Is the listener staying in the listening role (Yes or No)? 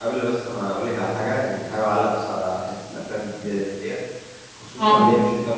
Yes